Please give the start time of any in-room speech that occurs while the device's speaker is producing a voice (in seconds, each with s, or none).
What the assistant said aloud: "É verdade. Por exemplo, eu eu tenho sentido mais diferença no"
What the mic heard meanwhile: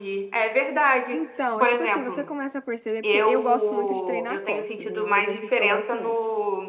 1.1 s